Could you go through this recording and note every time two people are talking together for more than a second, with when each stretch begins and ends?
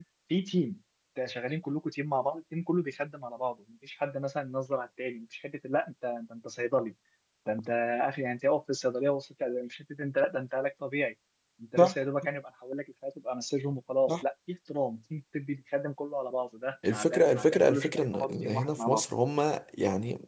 16.9-19.0

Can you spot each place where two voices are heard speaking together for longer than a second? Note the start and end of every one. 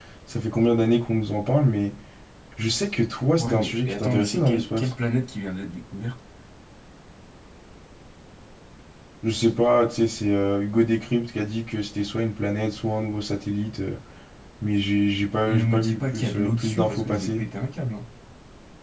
3.4-4.9, 15.5-17.4

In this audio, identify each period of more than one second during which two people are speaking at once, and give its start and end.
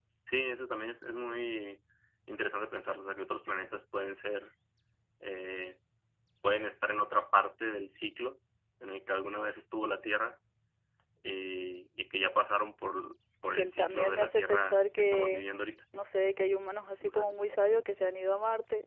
13.5-15.4

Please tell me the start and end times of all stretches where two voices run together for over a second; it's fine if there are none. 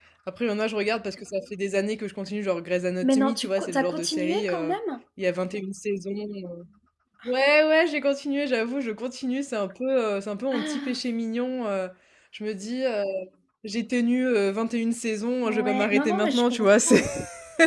3.0-4.7, 15.4-17.0

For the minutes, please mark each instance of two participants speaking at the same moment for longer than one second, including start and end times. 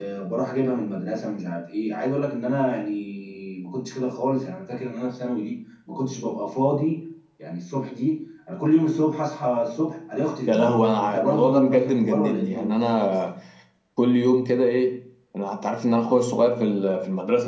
10.5-12.7

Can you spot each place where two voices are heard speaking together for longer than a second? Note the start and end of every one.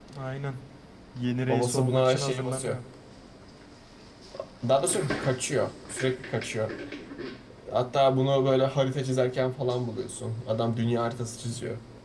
1.5-2.8

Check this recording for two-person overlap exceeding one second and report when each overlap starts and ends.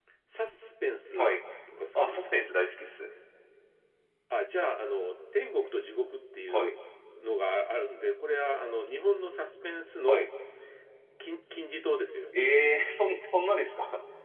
none

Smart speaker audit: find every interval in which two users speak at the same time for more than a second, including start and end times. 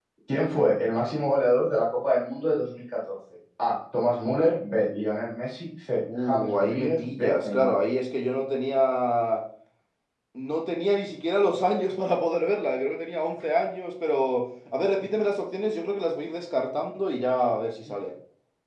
6.2-7.8

